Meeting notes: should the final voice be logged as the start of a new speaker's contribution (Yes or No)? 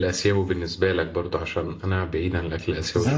Yes